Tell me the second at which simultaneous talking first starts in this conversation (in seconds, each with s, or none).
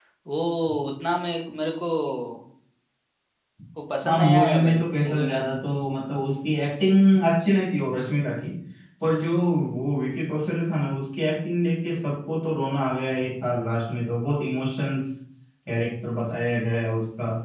4.0 s